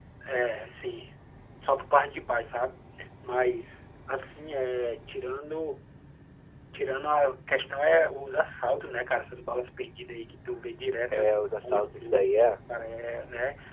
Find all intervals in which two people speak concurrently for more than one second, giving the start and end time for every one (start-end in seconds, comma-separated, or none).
11.1-12.5